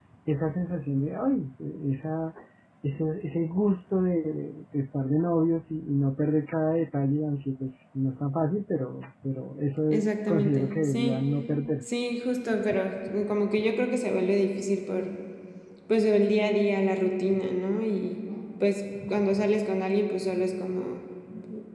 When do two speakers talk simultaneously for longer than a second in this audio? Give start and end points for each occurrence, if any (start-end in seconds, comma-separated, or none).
9.9-11.2